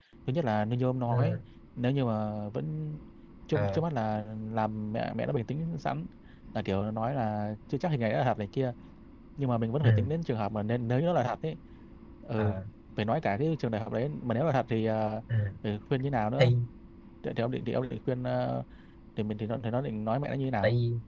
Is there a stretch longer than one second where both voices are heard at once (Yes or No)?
No